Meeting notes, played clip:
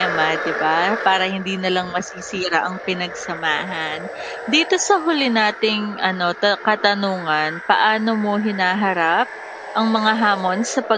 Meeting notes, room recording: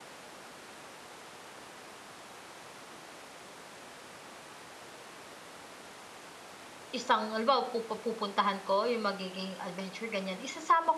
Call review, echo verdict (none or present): none